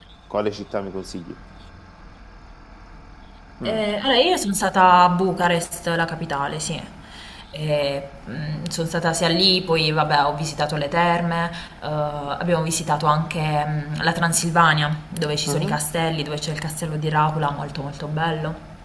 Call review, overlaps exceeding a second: none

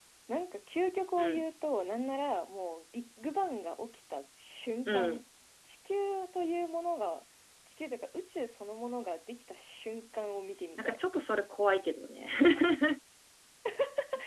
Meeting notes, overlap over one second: none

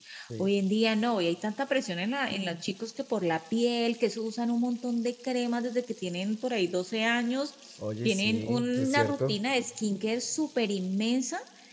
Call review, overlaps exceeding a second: present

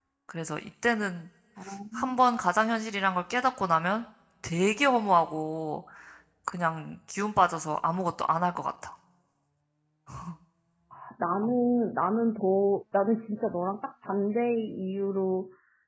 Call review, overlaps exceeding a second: none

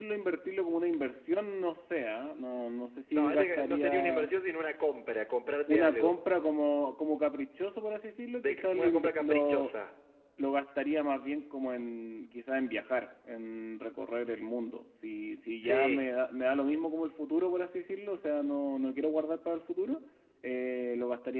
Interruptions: present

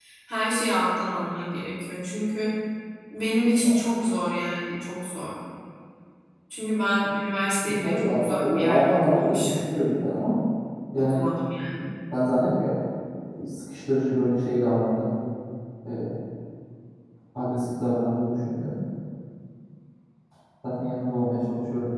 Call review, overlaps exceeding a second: present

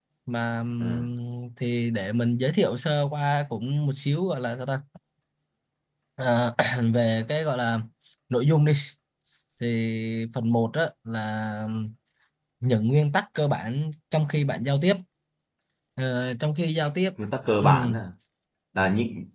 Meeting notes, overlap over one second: none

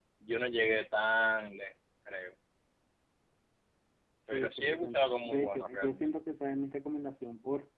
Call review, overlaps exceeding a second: present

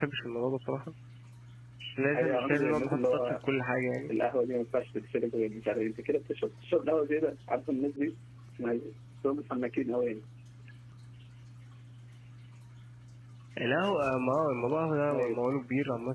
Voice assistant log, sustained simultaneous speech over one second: present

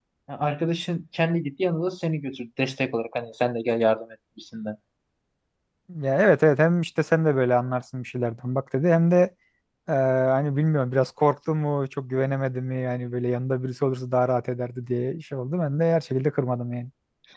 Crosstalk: none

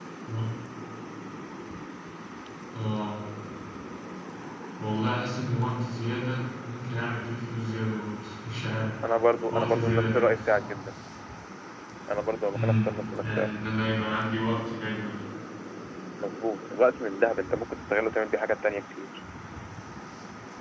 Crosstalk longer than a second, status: present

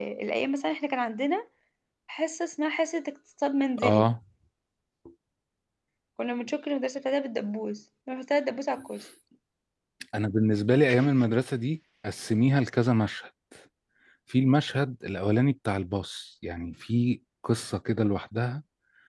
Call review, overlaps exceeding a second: none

